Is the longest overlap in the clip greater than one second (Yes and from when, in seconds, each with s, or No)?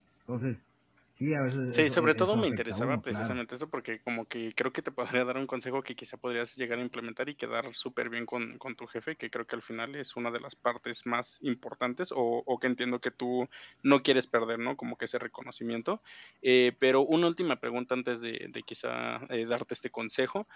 Yes, from 1.7 s